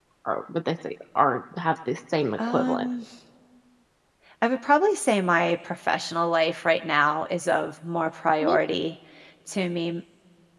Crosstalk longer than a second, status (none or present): none